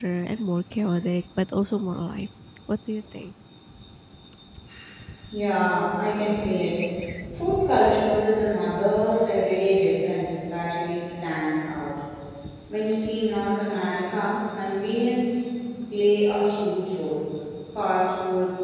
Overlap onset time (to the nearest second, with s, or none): none